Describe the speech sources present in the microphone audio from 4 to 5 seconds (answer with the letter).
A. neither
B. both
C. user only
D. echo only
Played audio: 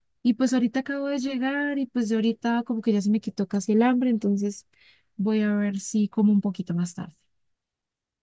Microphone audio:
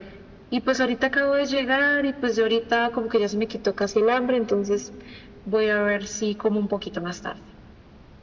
D